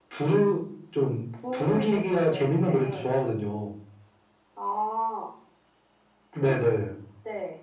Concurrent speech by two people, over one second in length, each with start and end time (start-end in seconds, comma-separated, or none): 1.5-2.9